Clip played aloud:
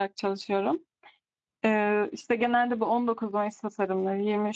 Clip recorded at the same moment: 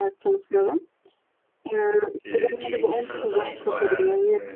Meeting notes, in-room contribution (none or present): present